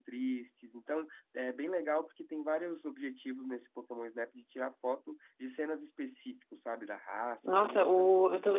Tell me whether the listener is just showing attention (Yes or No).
No